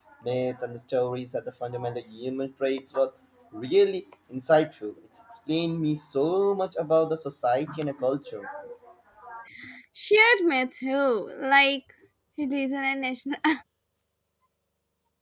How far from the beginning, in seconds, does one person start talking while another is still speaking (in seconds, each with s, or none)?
none